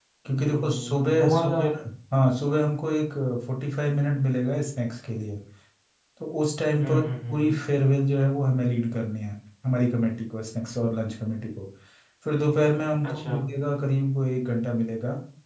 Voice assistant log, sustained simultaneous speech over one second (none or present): present